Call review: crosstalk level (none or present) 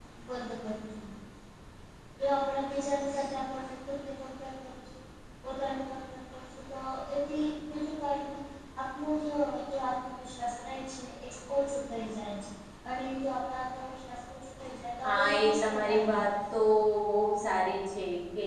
present